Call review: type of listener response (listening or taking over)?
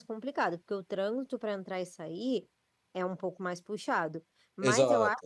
listening